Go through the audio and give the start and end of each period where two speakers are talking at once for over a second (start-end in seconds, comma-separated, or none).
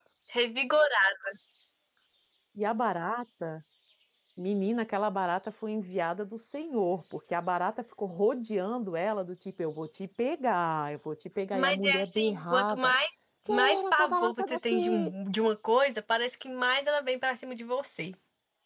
11.5-12.9, 13.5-15.1